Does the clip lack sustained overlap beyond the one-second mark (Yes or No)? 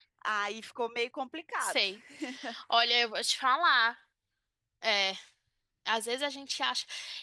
Yes